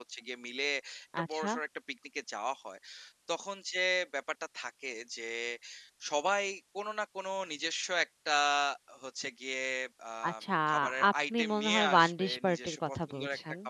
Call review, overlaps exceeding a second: present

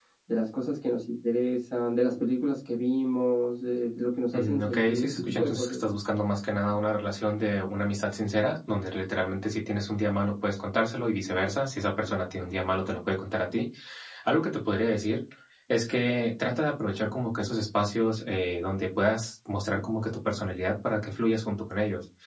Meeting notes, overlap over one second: present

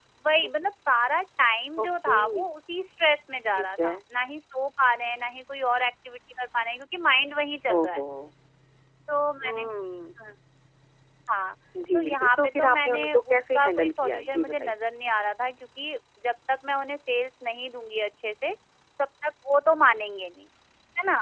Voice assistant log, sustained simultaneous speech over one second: present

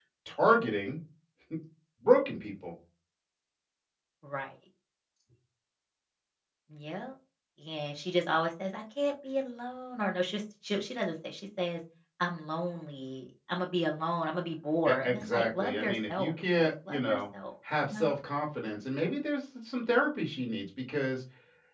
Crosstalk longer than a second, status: present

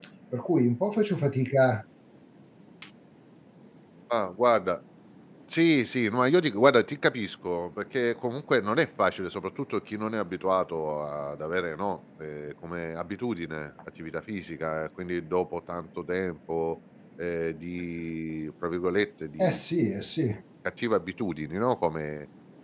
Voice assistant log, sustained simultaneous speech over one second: none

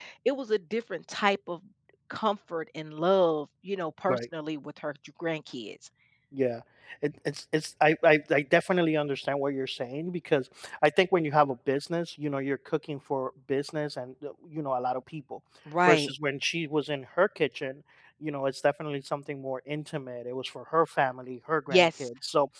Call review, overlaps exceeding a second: none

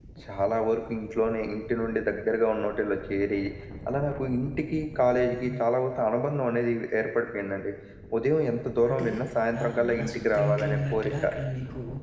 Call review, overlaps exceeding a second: present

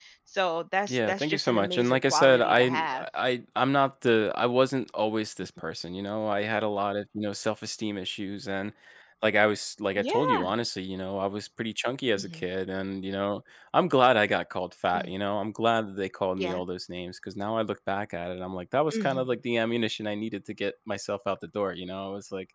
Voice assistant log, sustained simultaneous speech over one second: present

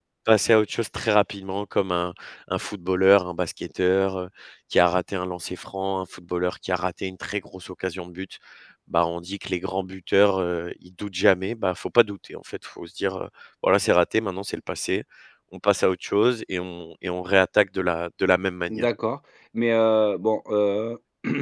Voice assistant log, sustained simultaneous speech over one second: none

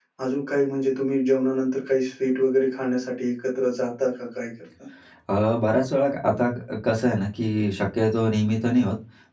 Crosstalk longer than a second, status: none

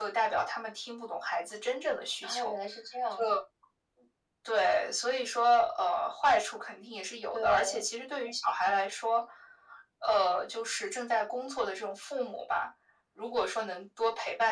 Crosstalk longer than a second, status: none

